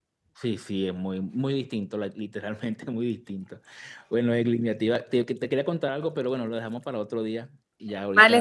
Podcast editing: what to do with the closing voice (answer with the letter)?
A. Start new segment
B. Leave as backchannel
A